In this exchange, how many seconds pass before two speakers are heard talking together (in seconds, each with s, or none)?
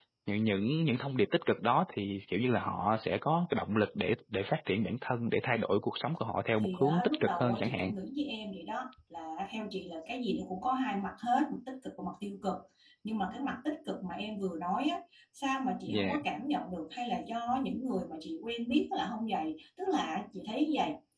6.6 s